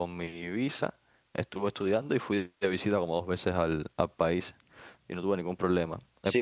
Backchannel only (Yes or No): No